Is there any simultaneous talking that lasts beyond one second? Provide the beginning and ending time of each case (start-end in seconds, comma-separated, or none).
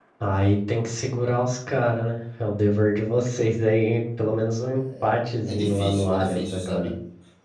5.5-6.9